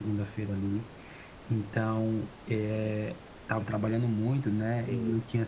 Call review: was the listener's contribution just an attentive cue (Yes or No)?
Yes